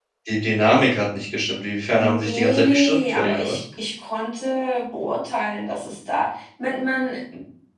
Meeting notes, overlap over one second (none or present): present